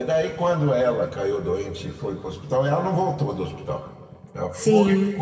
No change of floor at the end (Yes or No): Yes